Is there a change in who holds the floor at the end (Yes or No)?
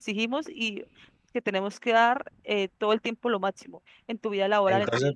Yes